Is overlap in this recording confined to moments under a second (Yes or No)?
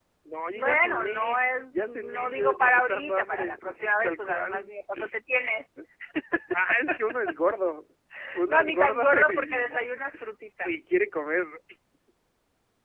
No